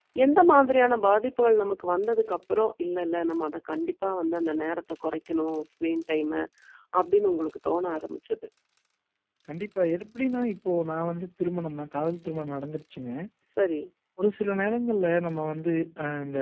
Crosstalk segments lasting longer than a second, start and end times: none

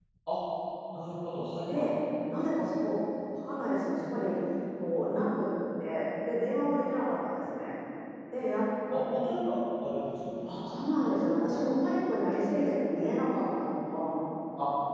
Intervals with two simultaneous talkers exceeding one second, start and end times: none

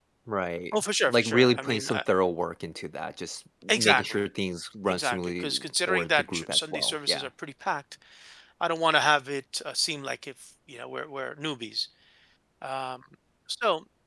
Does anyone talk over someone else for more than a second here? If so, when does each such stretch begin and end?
0.7-2.0, 4.9-7.3

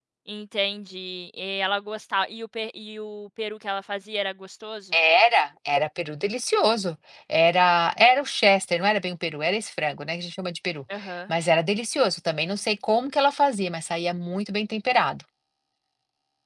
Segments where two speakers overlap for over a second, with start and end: none

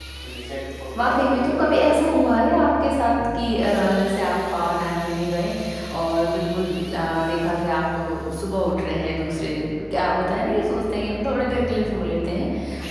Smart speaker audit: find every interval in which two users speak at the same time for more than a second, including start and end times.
1.0-2.2

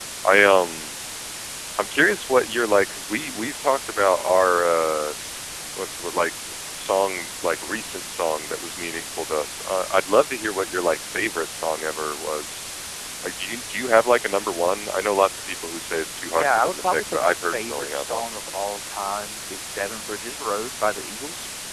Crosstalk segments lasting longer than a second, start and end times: 16.3-18.3

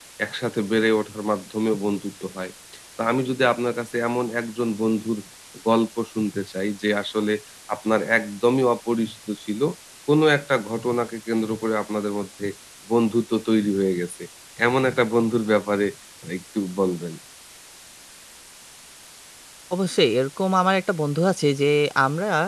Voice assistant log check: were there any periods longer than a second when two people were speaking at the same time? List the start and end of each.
none

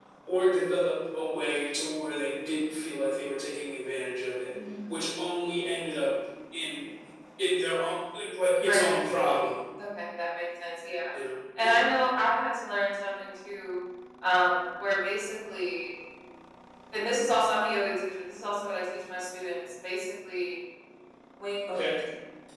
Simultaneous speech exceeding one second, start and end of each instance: none

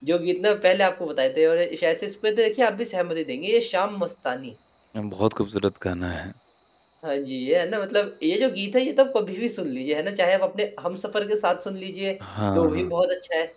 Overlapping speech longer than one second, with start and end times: none

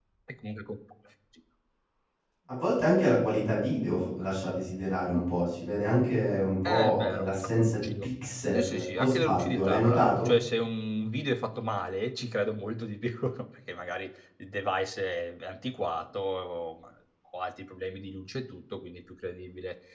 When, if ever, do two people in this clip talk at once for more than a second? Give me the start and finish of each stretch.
6.6-8.1, 8.5-10.3

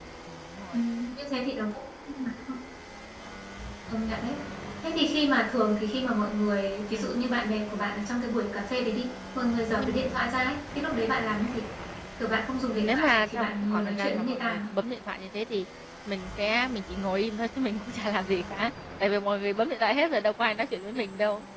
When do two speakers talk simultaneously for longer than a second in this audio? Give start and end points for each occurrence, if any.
12.7-14.6

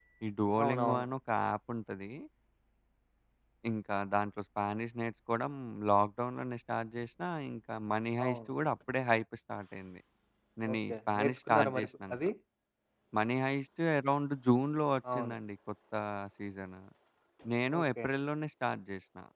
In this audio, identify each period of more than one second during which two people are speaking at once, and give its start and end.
10.7-12.2

